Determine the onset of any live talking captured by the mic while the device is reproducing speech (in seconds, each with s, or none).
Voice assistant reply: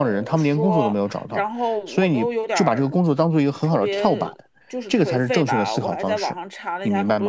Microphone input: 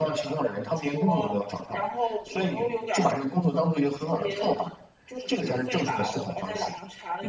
none